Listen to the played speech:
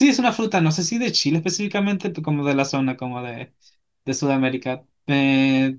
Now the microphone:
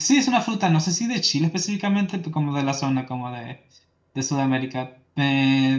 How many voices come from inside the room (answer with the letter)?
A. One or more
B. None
B